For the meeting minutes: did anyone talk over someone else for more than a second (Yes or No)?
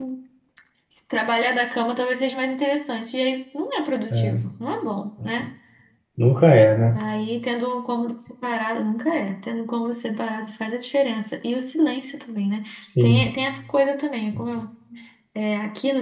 No